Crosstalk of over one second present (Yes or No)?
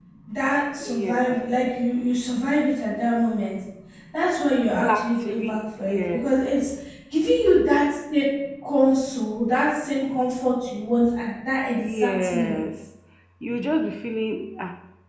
Yes